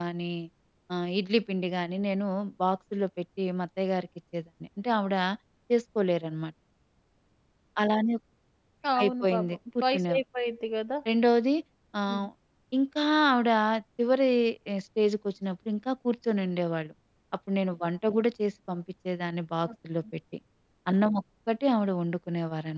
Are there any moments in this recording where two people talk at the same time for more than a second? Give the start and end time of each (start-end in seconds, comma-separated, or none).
9.0-10.2